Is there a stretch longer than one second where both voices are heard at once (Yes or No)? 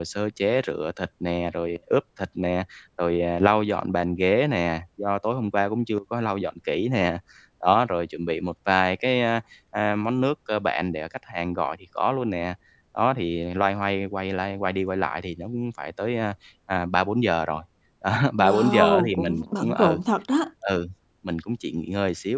Yes